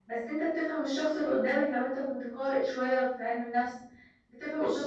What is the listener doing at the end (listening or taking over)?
listening